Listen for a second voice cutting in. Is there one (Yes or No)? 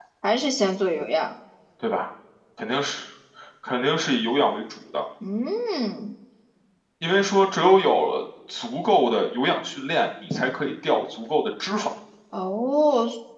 No